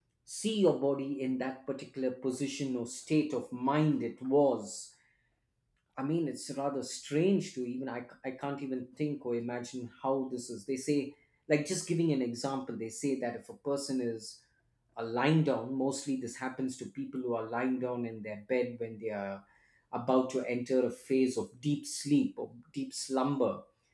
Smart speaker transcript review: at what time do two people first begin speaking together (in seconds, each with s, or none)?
none